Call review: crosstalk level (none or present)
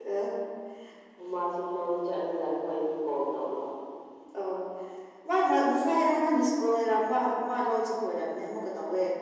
none